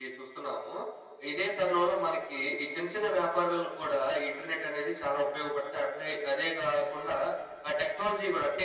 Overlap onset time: none

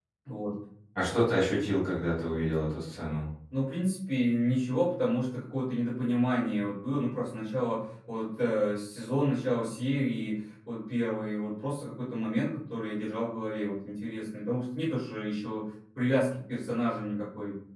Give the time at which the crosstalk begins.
none

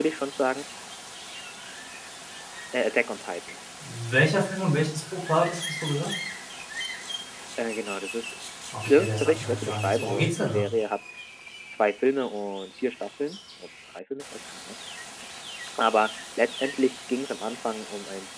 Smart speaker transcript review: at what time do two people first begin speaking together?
8.9 s

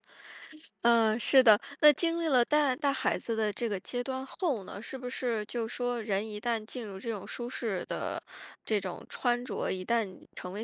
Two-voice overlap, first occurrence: none

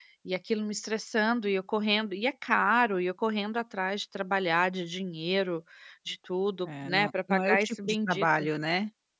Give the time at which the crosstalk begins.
6.6 s

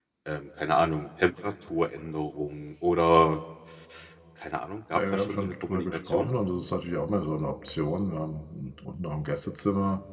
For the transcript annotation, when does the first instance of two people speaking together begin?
4.9 s

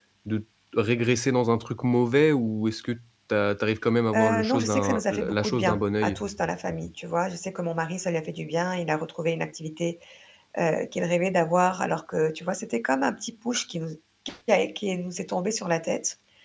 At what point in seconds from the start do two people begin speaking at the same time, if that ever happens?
4.1 s

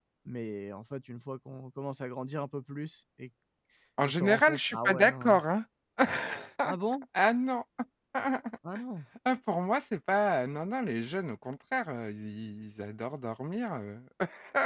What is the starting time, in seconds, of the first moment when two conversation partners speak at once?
4.0 s

